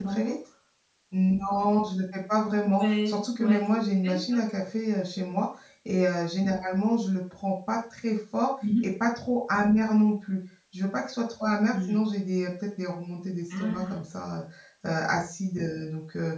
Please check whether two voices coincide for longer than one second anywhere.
Yes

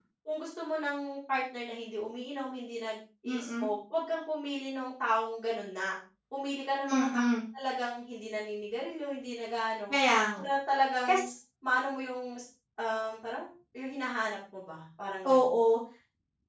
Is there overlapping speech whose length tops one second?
No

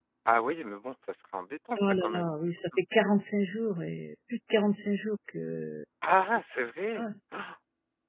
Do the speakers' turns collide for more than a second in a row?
No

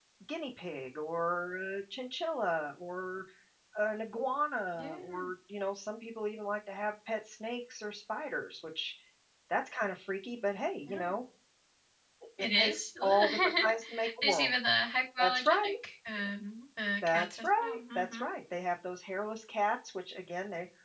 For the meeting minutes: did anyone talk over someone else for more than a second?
Yes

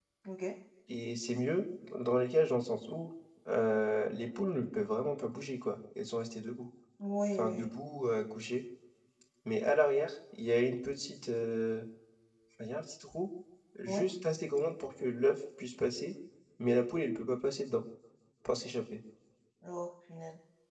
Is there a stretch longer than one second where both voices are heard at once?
No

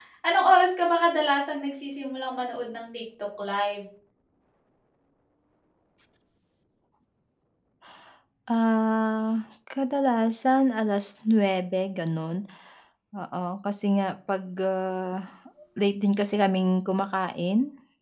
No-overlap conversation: Yes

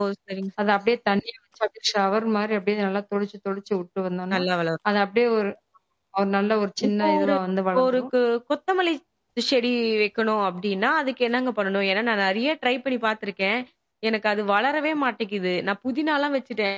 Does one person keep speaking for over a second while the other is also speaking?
No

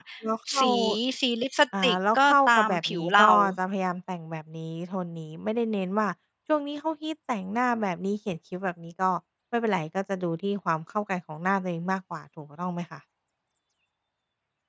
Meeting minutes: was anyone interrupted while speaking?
Yes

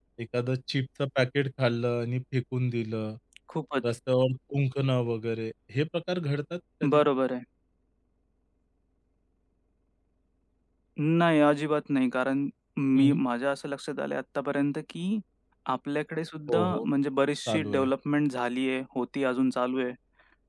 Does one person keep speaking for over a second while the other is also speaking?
No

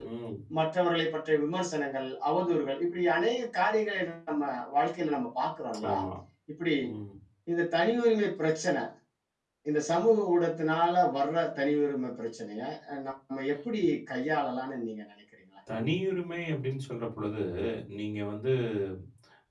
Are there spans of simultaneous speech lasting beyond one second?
No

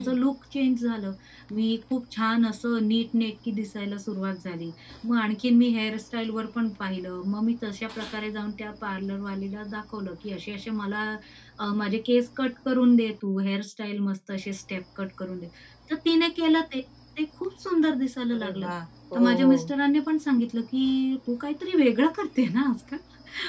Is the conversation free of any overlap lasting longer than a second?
Yes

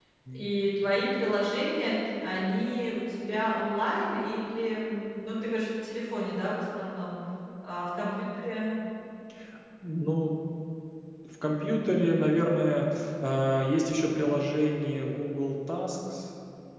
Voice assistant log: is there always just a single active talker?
Yes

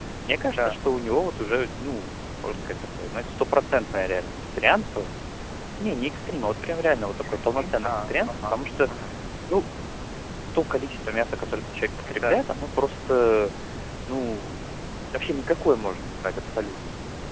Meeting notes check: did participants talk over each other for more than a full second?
Yes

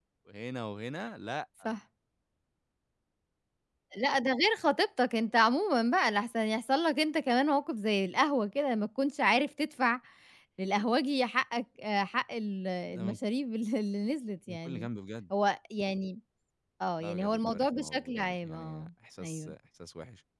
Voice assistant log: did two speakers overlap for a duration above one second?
Yes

